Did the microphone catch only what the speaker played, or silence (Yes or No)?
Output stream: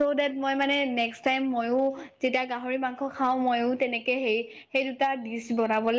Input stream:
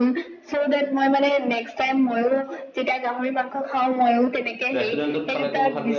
No